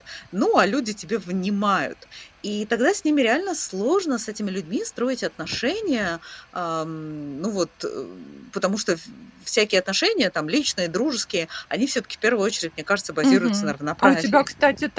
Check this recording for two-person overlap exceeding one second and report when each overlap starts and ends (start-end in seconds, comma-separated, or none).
13.2-14.4